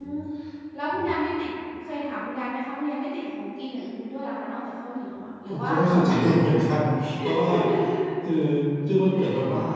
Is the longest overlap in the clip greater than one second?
Yes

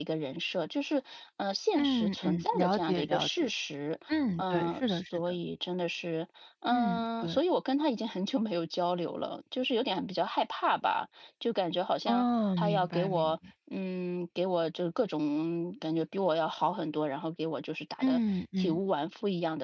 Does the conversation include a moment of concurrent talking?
Yes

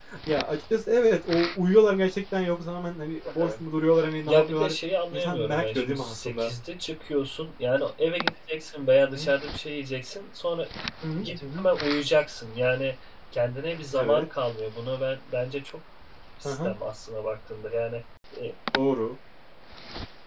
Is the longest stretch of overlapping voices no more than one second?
No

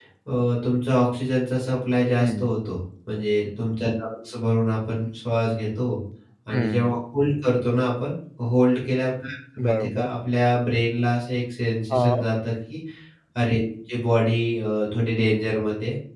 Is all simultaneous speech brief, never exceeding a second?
Yes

